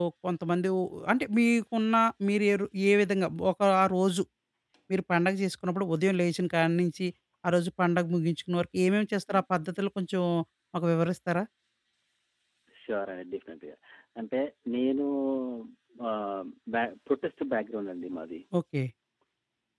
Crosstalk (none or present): none